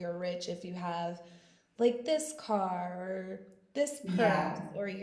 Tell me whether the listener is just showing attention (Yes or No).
Yes